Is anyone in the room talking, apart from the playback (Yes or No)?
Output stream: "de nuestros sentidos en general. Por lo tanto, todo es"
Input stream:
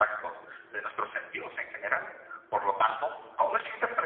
No